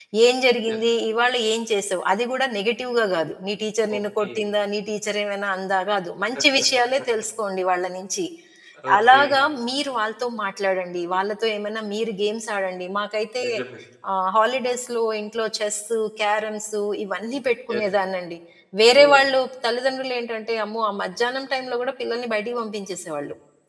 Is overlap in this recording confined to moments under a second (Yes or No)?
Yes